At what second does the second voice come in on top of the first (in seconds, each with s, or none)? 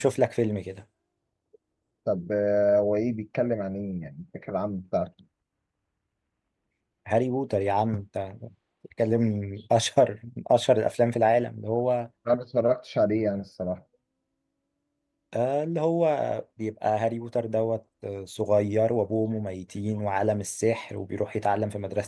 none